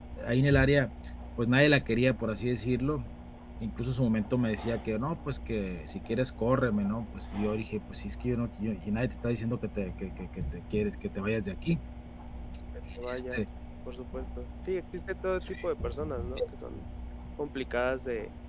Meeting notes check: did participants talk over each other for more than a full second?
No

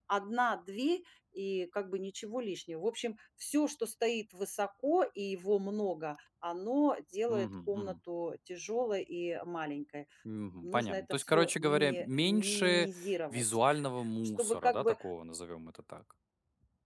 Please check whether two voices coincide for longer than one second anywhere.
Yes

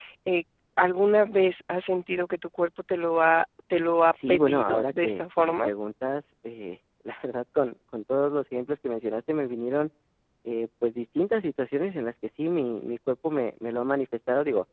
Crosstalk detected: Yes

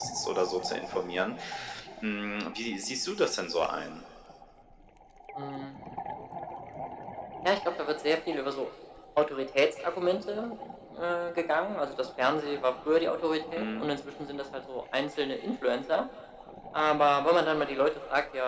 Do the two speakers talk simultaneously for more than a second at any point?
No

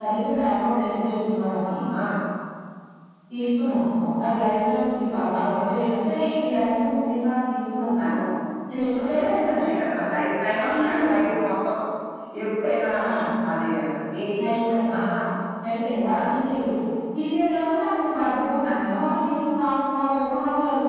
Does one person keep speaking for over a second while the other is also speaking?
No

